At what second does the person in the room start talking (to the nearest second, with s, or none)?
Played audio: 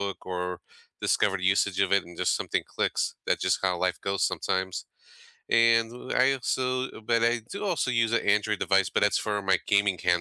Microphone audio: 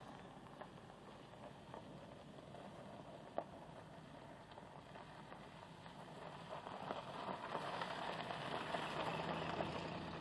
none